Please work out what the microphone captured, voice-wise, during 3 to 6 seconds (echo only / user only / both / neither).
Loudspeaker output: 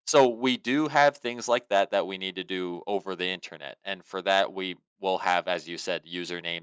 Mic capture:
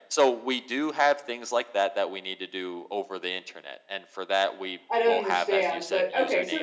both